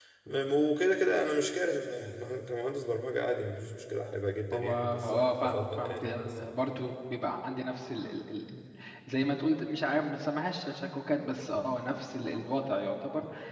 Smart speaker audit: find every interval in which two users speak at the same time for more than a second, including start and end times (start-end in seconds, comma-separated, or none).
4.5-6.8